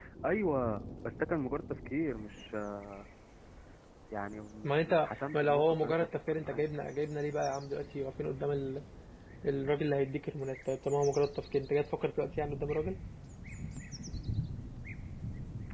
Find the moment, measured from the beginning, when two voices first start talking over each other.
4.6 s

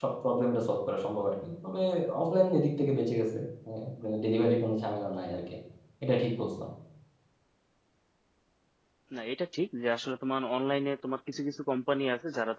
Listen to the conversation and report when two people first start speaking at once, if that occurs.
none

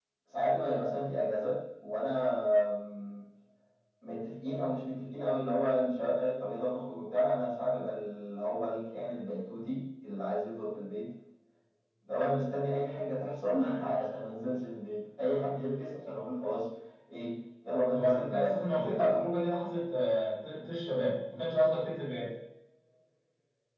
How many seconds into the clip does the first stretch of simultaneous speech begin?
17.9 s

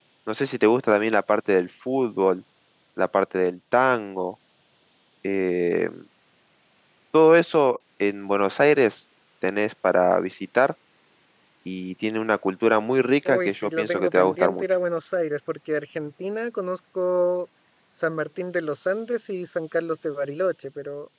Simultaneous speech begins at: 13.2 s

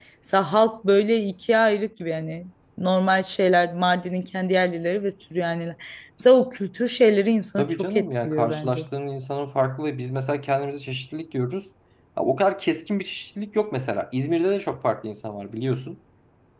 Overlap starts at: 7.6 s

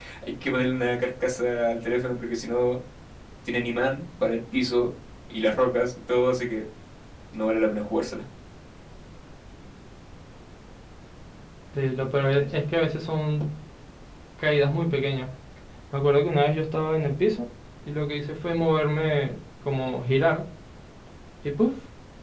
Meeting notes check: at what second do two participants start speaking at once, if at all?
none

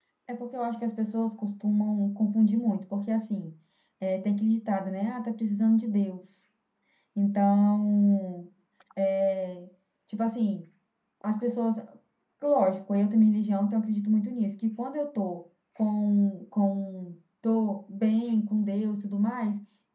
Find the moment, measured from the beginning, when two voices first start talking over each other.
none

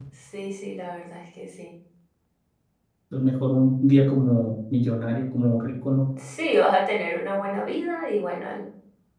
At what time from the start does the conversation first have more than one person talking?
none

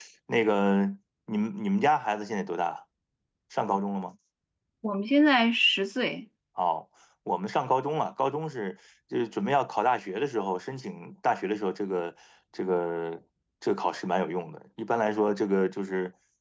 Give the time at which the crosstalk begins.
none

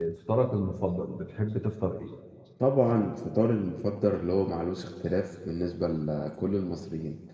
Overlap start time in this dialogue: none

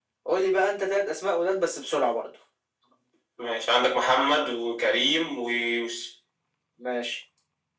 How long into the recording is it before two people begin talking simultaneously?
none

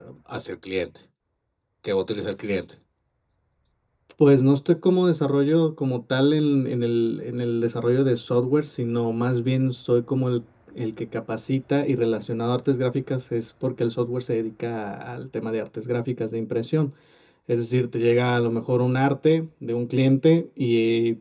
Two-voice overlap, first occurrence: none

